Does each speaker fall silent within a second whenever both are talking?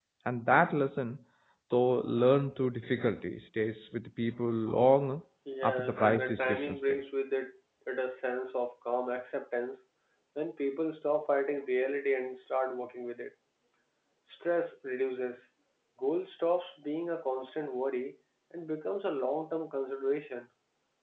No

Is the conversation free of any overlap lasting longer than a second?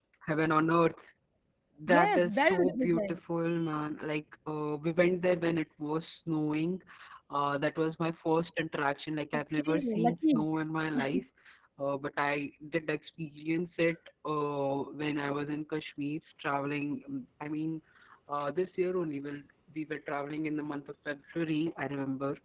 No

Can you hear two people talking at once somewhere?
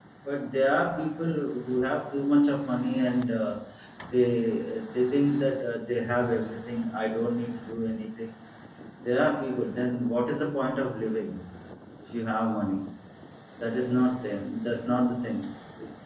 No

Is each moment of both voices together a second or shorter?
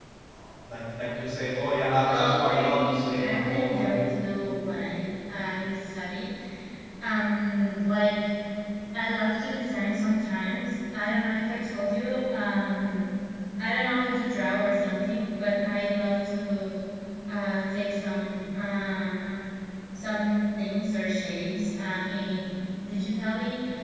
No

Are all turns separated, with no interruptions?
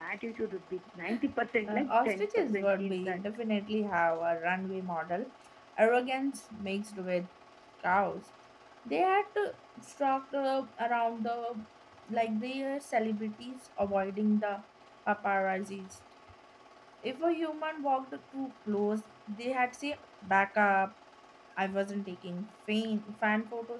No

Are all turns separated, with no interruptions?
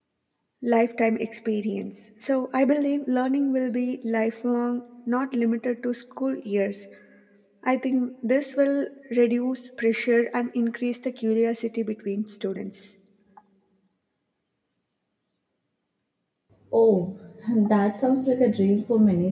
Yes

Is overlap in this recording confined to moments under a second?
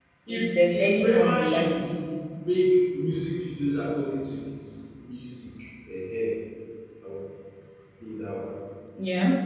No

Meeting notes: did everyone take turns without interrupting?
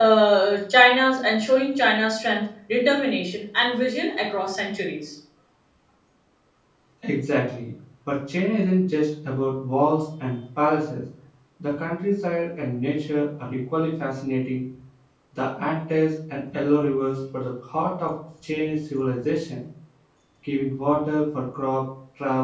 Yes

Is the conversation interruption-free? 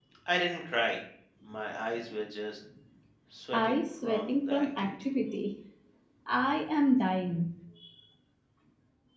No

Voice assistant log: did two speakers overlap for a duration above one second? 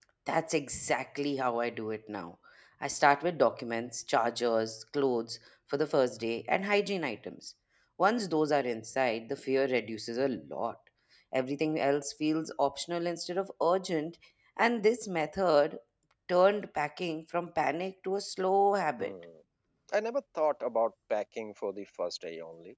No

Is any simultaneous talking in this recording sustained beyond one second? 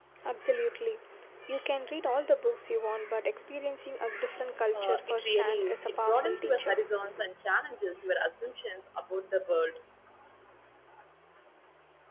Yes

